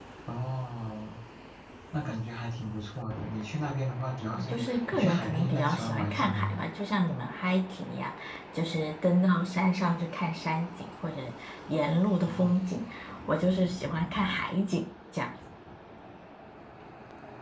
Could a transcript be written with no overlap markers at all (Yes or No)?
No